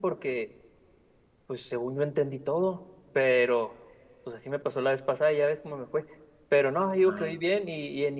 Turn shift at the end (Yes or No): No